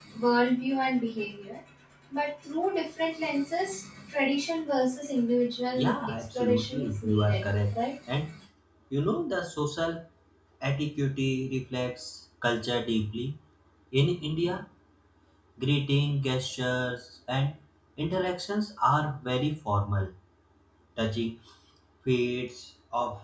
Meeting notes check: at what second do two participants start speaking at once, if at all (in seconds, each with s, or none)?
5.8 s